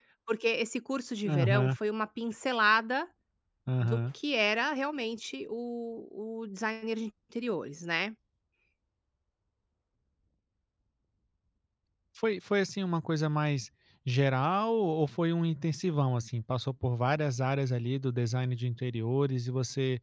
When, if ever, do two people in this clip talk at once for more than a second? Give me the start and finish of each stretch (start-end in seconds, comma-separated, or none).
none